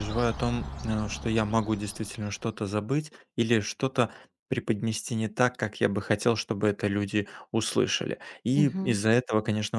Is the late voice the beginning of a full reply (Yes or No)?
No